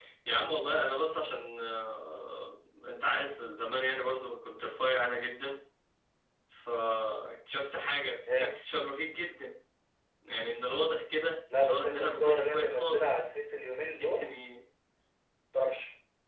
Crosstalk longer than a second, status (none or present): present